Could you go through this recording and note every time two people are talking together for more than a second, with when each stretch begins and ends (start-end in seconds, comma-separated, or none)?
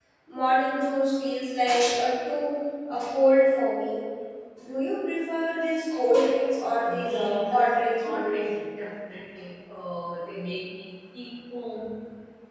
6.5-8.4